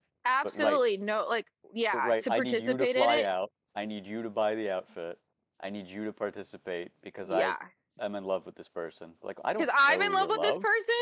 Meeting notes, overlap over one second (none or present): present